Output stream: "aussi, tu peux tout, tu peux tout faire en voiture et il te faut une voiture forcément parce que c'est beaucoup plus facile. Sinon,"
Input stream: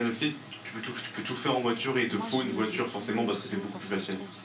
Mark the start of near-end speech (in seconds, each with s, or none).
1.8 s